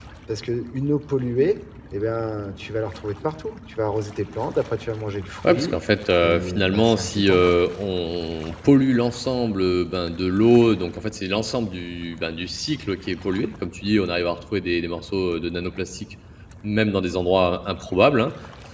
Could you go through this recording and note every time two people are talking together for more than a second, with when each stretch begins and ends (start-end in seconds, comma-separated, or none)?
6.2-7.4